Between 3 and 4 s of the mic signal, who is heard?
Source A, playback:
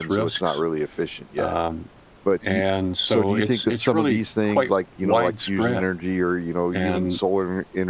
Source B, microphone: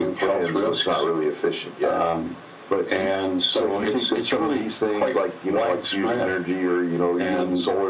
echo only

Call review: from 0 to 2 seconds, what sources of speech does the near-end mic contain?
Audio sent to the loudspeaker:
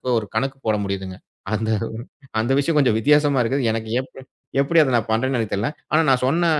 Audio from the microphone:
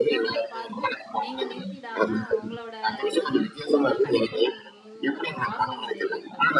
both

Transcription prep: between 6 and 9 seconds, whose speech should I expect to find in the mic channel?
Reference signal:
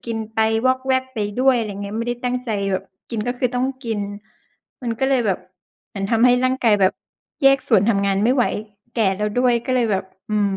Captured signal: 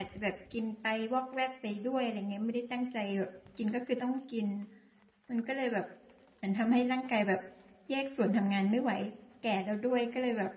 echo only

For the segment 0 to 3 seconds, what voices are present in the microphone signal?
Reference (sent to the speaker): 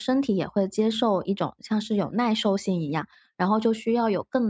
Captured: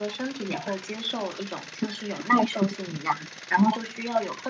echo only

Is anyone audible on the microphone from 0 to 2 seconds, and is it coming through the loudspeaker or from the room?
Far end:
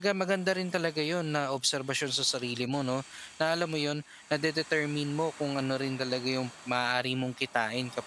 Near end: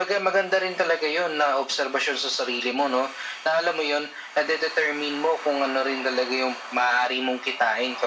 echo only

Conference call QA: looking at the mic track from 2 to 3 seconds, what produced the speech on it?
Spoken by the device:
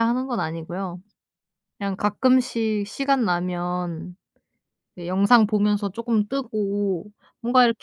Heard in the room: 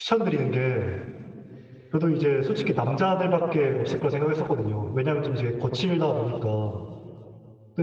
user only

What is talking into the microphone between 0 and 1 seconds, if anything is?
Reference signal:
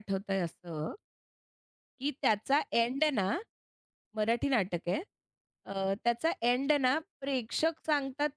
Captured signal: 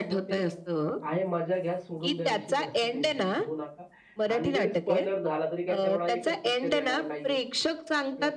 both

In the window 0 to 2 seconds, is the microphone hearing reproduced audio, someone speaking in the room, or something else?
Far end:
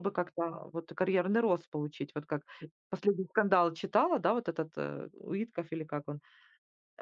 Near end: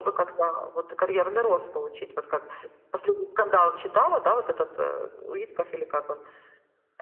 echo only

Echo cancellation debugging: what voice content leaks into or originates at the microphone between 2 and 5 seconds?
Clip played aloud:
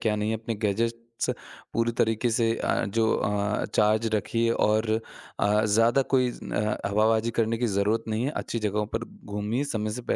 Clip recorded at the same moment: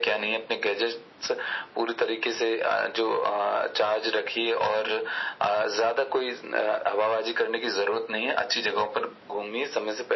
echo only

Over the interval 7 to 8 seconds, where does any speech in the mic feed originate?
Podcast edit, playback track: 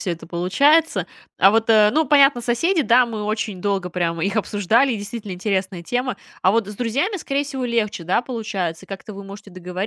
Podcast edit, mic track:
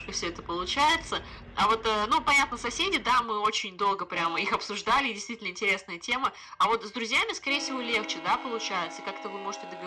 echo only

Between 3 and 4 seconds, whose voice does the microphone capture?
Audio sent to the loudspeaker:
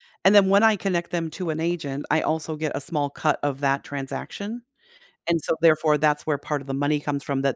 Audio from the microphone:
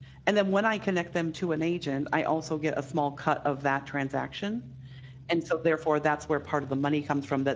echo only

